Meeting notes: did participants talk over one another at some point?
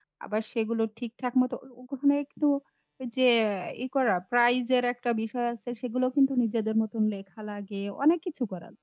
No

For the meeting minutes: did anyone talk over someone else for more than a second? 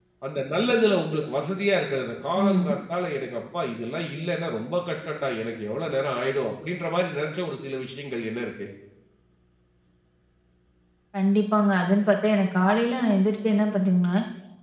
No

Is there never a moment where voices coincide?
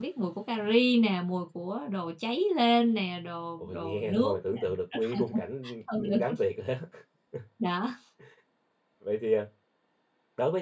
No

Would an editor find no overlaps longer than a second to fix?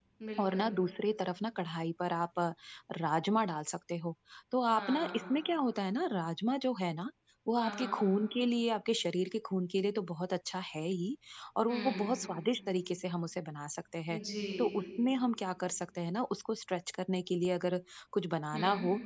Yes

